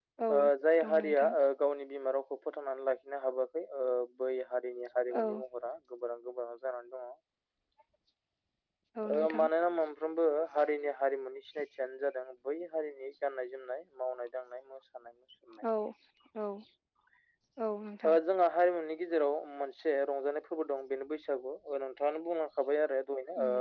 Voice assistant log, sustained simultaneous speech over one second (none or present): none